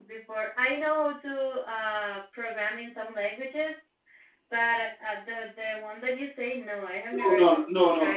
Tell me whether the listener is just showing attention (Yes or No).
No